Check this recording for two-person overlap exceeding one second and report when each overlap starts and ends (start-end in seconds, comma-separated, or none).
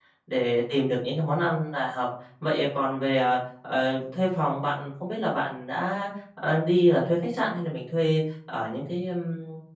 none